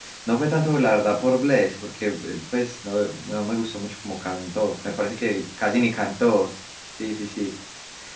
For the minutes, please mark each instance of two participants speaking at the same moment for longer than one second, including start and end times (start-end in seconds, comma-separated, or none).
none